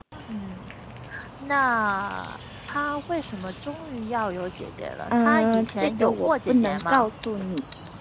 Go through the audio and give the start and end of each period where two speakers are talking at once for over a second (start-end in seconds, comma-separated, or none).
5.1-7.1